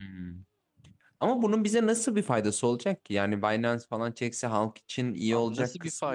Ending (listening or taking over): taking over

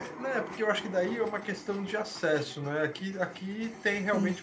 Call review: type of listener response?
listening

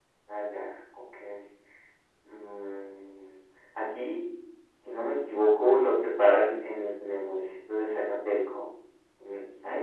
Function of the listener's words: listening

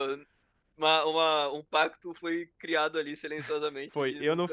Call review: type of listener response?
taking over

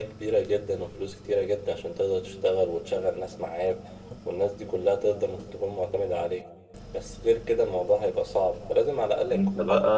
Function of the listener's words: taking over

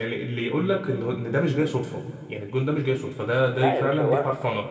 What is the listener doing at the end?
taking over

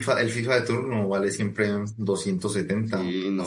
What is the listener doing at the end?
taking over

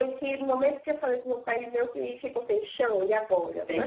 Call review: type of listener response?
taking over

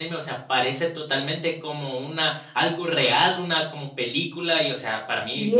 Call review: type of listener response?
taking over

